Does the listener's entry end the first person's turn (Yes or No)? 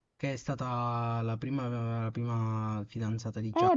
Yes